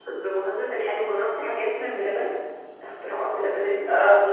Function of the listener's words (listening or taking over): taking over